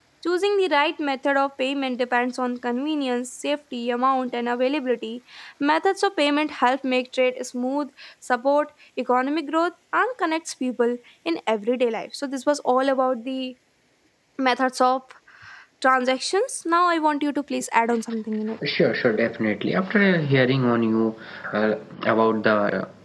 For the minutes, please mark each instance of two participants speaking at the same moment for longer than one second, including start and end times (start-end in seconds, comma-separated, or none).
none